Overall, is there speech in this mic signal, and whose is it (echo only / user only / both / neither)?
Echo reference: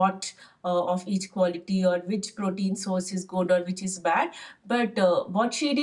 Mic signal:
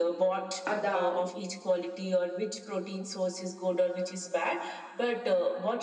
both